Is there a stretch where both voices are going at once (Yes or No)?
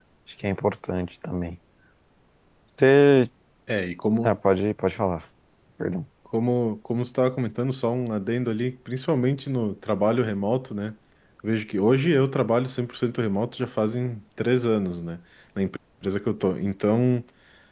No